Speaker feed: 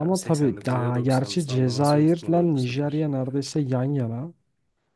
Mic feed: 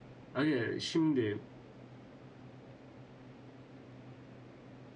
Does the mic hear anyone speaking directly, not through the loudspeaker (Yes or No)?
Yes